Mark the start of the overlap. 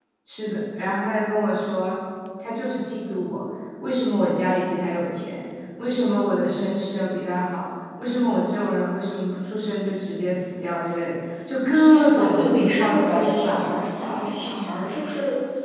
11.7 s

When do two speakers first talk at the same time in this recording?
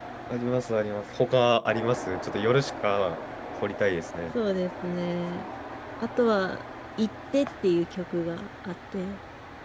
none

